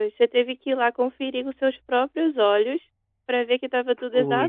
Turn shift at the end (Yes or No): No